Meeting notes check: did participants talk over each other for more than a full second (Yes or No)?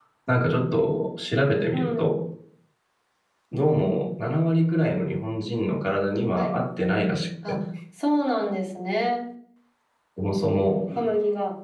No